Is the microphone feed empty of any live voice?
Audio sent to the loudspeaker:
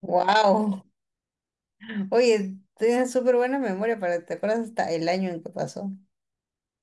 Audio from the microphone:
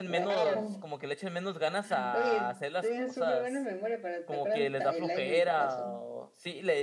No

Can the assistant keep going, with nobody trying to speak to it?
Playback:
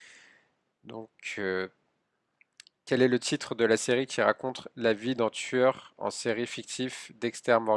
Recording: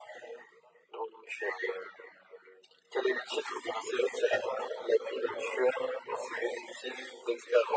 Yes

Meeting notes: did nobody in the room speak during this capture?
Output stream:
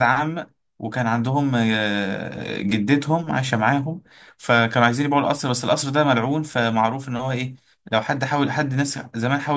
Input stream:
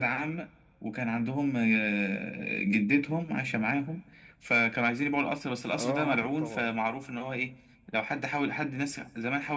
No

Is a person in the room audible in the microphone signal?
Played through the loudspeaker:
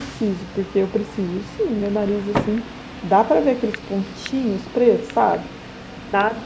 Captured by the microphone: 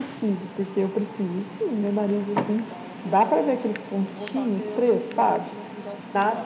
Yes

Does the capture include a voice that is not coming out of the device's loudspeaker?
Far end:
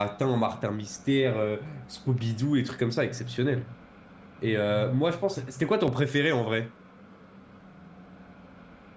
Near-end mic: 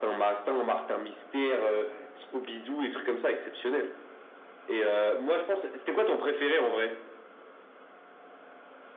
No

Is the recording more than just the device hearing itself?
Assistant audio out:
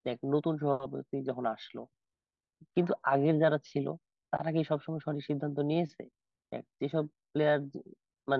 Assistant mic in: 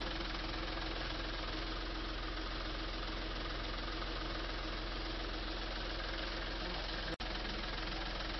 No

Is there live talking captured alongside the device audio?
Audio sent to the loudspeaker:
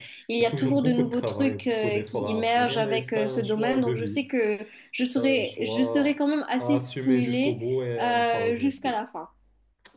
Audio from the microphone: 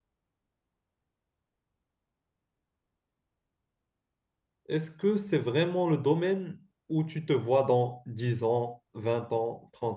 Yes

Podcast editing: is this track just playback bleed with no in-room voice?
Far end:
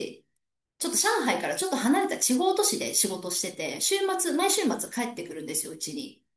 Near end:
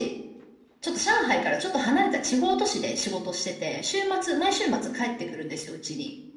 Yes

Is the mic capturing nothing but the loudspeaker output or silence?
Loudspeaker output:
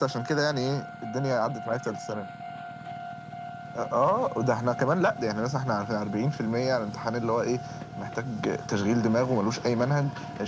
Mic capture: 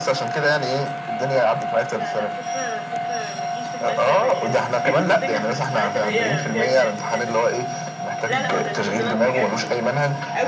No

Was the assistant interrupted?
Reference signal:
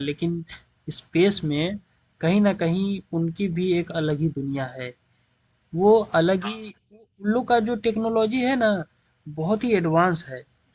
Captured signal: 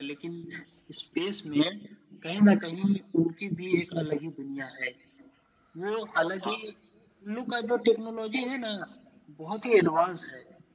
No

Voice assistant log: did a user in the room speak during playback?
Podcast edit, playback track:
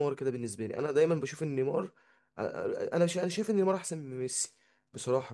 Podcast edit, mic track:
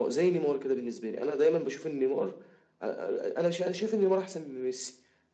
No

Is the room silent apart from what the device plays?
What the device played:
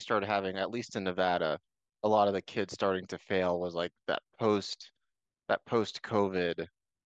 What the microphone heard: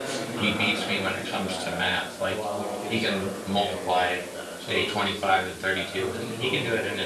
No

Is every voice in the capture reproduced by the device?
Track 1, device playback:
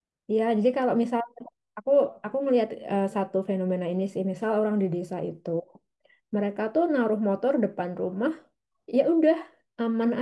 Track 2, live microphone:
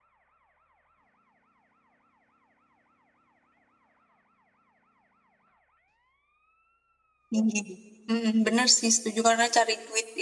No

